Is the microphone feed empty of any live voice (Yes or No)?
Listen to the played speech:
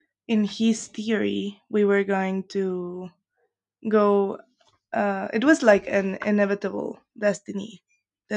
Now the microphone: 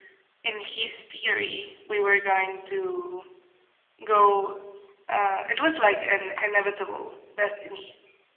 Yes